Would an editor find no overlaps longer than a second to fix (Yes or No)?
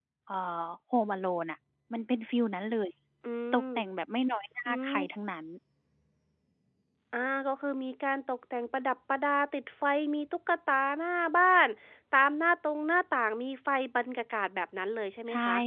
Yes